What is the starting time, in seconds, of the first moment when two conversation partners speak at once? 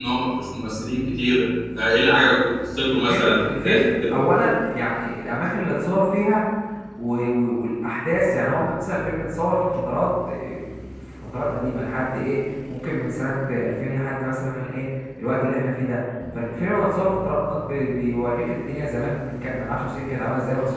2.9 s

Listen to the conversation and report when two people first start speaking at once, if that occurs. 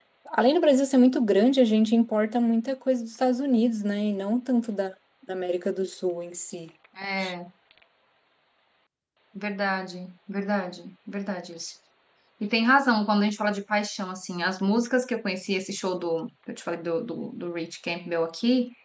none

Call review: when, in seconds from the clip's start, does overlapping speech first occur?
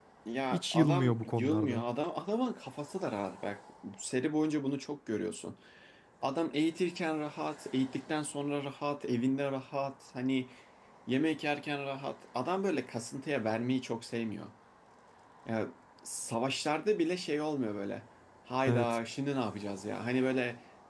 0.5 s

